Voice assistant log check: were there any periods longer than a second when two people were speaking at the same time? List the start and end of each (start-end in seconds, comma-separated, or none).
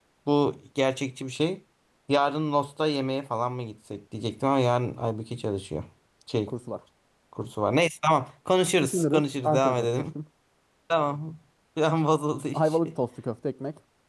8.8-10.0